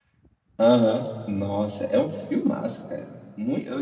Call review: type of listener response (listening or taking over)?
taking over